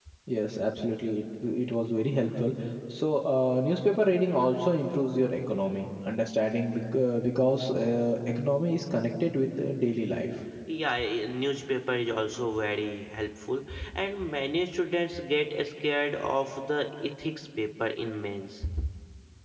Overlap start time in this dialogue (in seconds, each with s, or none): none